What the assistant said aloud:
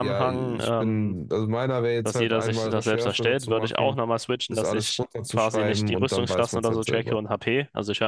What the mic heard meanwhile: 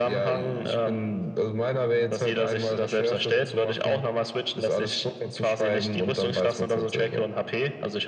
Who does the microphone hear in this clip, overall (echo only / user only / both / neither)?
echo only